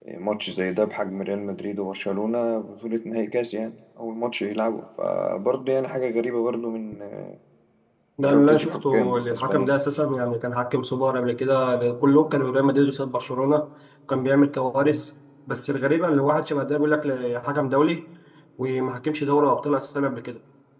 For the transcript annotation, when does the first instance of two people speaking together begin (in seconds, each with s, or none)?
8.2 s